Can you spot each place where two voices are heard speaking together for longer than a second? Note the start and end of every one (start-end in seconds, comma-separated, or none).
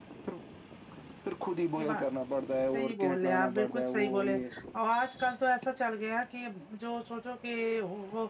2.7-4.3